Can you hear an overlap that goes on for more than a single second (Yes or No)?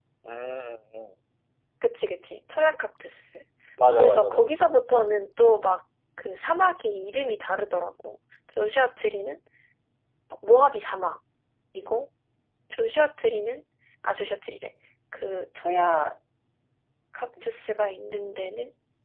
No